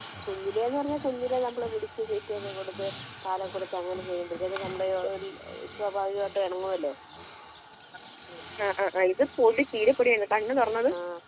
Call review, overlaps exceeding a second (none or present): none